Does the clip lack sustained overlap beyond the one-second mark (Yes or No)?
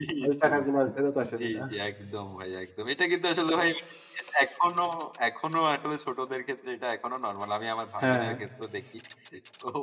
Yes